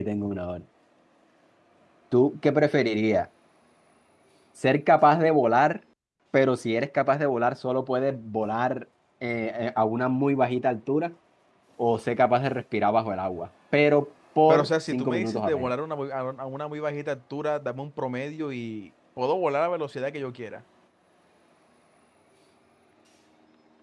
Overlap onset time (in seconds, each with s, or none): 14.5 s